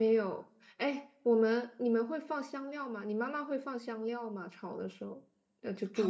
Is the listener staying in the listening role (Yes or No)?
No